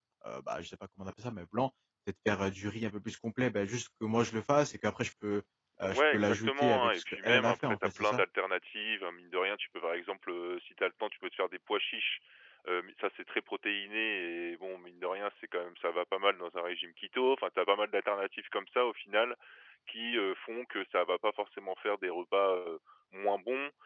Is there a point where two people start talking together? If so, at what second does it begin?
5.9 s

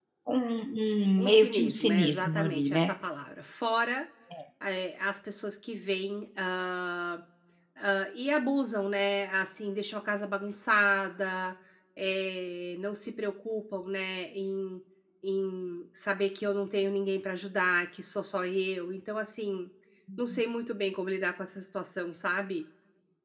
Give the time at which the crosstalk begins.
1.2 s

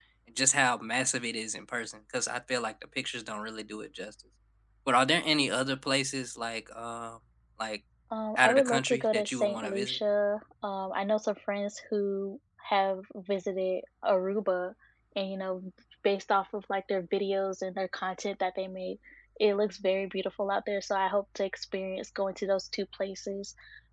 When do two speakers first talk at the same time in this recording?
8.4 s

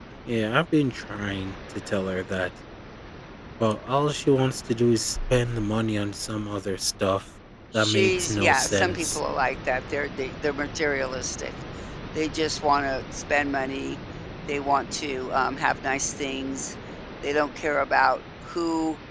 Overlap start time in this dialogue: 7.7 s

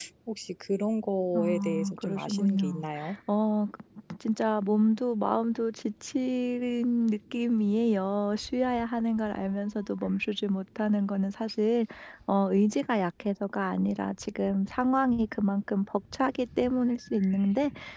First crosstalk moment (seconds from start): 1.3 s

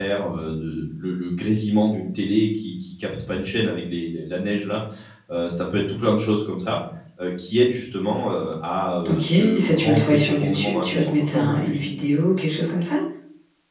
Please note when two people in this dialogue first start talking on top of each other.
9.0 s

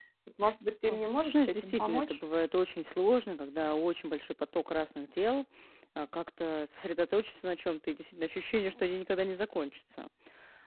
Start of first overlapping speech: 0.9 s

